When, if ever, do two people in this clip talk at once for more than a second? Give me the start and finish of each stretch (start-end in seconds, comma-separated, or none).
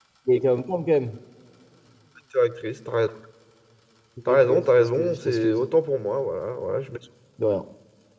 4.3-5.6